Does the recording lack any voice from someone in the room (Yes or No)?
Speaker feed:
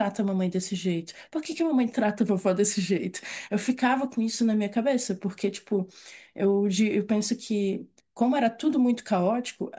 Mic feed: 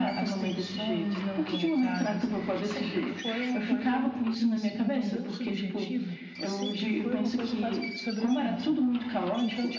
No